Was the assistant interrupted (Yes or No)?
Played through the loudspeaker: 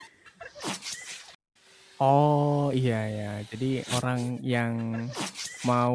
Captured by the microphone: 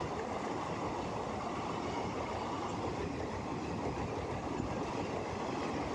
No